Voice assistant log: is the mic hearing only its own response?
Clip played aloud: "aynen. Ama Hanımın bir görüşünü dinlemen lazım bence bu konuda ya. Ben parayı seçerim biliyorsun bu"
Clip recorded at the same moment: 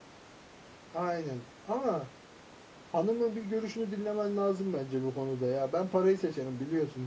Yes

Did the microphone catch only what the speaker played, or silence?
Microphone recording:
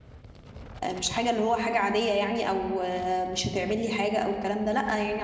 No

